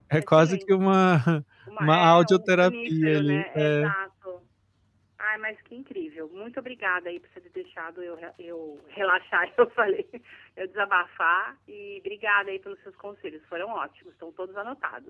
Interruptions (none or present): present